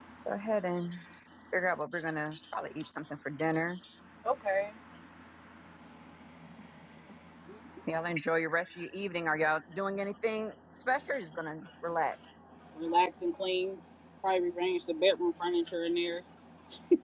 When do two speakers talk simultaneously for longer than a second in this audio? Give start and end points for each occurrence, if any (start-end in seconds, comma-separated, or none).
none